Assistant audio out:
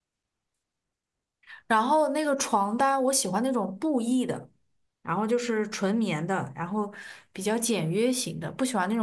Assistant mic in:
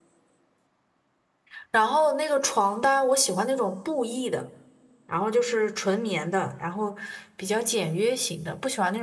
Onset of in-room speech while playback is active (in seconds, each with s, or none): none